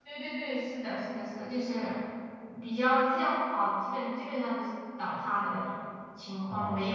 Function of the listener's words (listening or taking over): listening